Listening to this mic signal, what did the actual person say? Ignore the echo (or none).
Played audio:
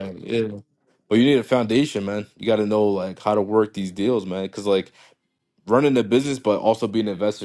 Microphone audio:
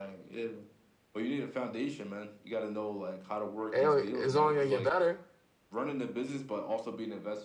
AI is only going to get better.